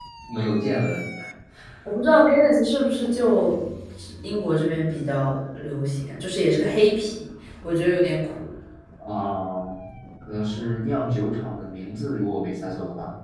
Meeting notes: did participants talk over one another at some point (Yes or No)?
No